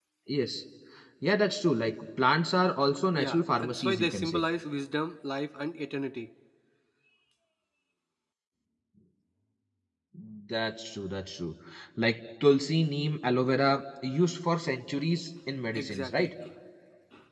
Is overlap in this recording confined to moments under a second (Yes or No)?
No